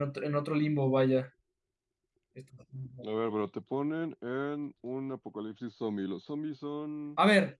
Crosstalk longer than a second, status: none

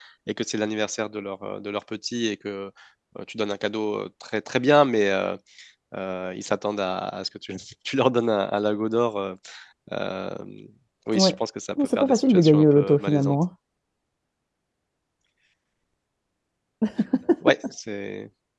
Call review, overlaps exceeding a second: present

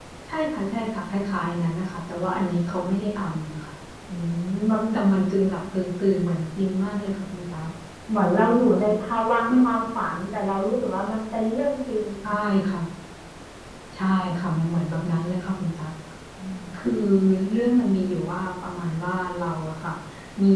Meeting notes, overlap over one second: none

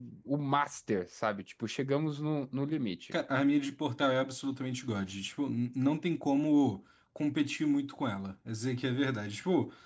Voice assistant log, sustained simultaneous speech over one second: none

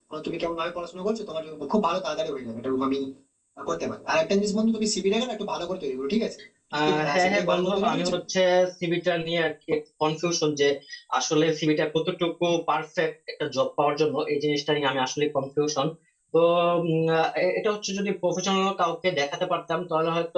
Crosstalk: present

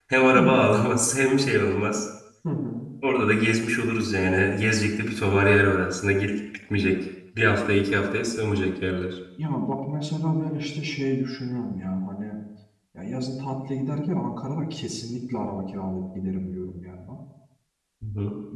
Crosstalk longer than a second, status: none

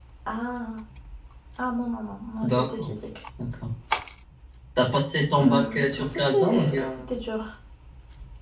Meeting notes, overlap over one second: present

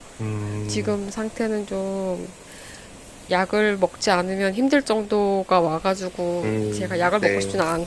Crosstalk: present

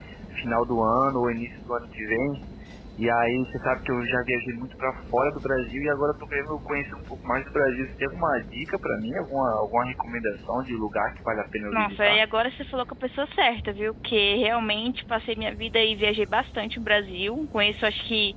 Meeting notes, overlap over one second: none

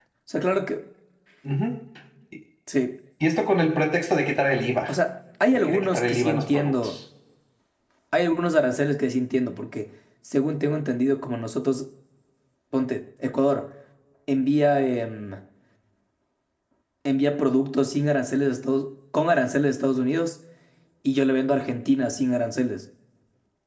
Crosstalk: present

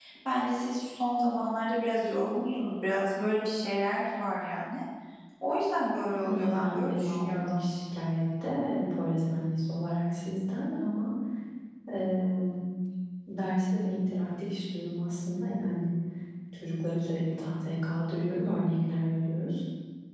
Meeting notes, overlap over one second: present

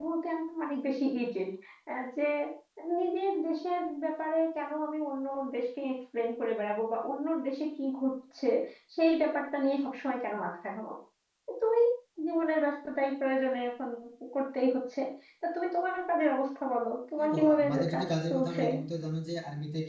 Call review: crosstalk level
present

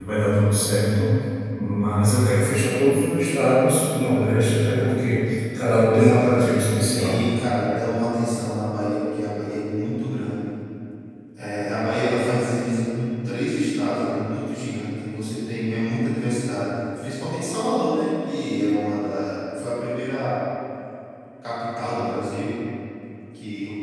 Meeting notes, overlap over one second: present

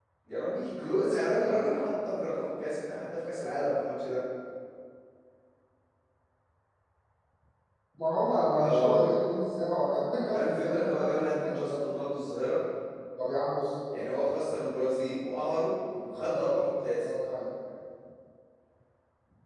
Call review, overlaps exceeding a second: present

